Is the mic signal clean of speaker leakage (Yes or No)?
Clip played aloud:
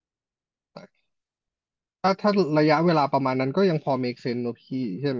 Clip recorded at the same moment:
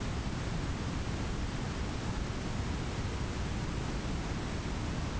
Yes